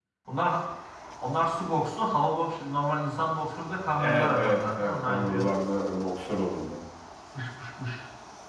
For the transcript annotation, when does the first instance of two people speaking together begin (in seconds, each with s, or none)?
4.0 s